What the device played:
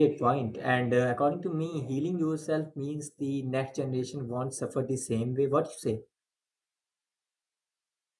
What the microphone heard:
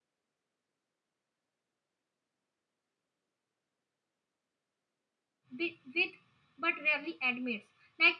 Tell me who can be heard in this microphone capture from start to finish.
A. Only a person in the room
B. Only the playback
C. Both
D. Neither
A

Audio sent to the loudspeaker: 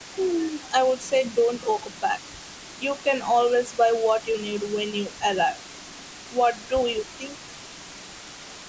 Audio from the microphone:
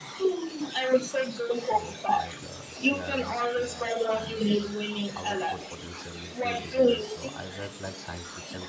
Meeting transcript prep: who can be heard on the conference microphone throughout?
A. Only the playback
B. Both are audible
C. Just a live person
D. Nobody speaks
B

